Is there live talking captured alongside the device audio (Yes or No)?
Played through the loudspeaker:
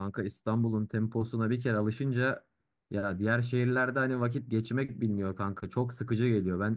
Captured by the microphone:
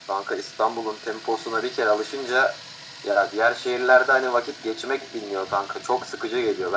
No